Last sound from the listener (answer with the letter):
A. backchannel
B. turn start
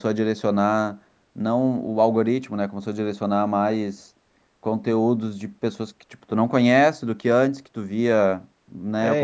B